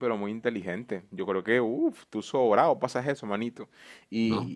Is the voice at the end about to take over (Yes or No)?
No